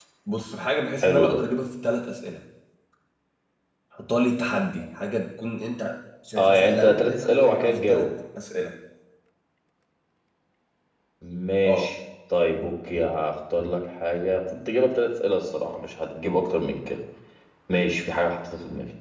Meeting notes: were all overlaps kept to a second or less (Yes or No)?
No